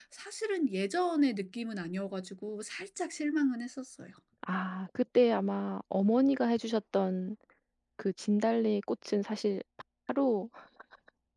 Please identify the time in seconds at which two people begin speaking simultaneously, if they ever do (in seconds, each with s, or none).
none